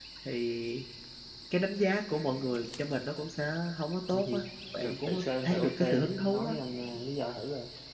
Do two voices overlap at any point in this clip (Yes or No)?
Yes